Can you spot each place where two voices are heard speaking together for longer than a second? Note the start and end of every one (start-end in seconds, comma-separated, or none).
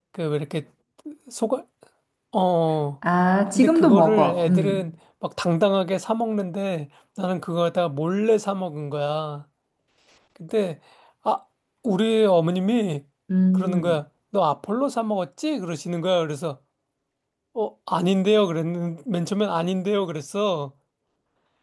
3.5-4.9